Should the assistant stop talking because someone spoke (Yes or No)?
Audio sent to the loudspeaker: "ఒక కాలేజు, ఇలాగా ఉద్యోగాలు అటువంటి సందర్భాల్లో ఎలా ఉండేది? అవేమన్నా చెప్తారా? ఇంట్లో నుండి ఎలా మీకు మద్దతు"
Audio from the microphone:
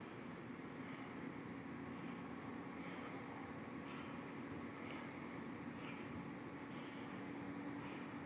No